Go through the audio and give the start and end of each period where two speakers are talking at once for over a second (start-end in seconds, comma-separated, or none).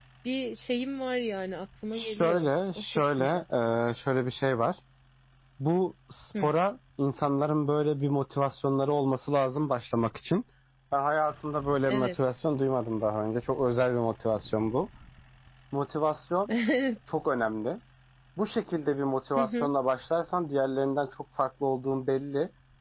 1.9-3.4